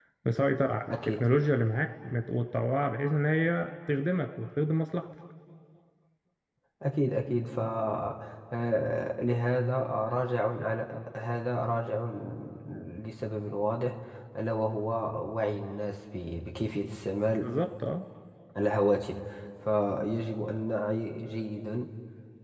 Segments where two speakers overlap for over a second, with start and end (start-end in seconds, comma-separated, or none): none